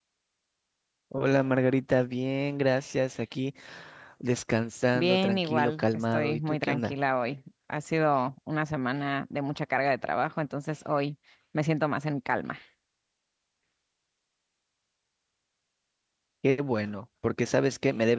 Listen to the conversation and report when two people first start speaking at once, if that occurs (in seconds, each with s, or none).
4.9 s